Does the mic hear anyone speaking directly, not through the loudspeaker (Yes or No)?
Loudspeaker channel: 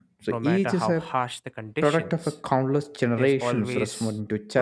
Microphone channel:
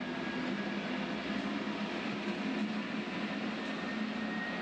No